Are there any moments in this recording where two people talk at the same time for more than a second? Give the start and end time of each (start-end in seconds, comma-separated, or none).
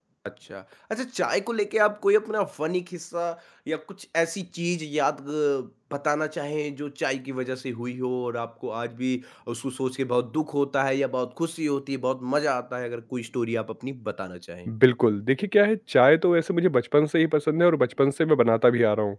none